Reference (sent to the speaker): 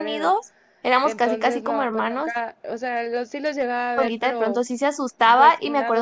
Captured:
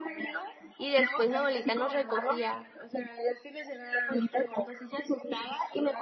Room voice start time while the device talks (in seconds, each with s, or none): 0.8 s